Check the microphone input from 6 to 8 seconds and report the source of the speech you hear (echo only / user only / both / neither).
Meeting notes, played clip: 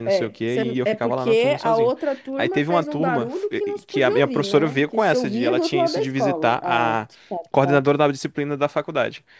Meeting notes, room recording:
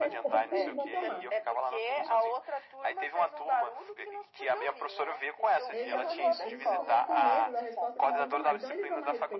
both